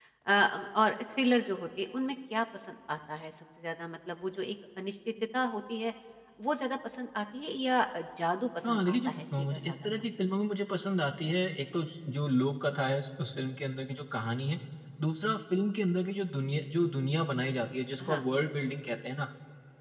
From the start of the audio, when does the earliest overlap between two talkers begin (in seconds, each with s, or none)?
8.6 s